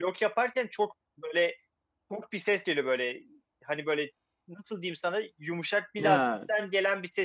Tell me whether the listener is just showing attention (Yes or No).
Yes